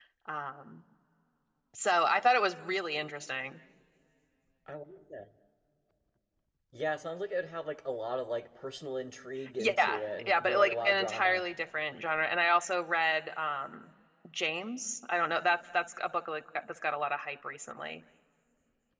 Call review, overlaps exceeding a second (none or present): present